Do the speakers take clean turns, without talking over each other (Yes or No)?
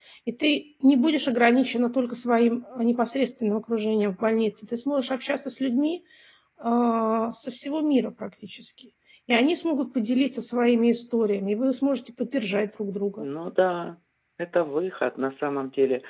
Yes